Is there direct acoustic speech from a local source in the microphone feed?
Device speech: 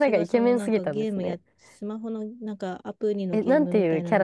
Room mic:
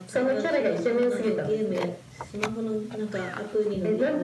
No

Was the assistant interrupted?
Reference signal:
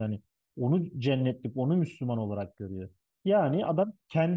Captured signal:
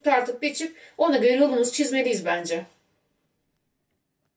Yes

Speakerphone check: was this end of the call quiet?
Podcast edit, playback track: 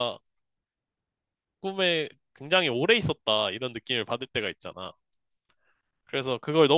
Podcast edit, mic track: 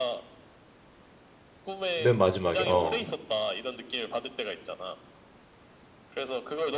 No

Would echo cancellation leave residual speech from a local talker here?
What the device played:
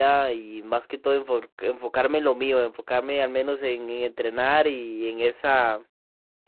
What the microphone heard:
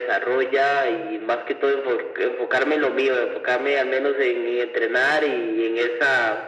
No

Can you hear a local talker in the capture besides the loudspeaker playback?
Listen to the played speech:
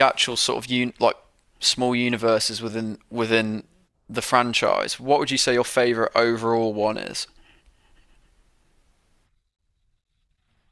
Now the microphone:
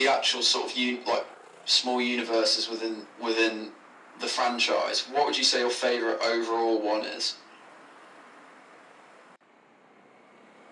No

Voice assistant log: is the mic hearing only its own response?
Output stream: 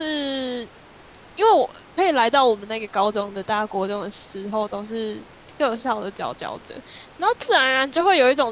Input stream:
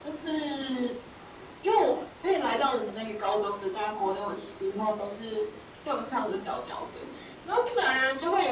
Yes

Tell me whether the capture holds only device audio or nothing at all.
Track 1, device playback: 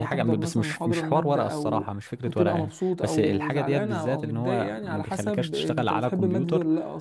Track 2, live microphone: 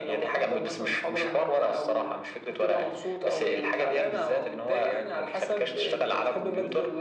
Yes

